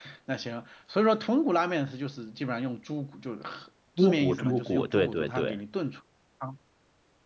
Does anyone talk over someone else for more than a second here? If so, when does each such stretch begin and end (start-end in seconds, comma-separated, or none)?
4.0-5.6